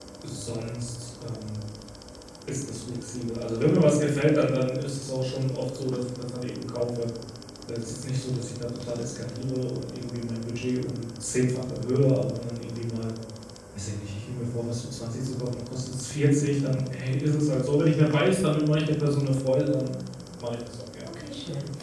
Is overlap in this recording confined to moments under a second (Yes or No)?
Yes